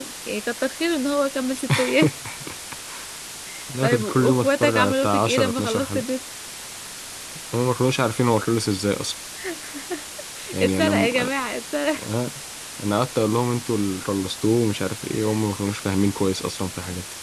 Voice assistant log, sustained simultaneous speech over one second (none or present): present